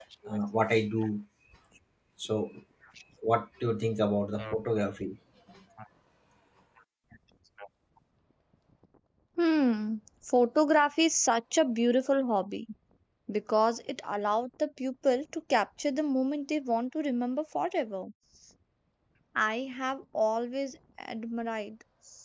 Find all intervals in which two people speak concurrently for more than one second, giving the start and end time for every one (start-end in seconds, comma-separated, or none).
none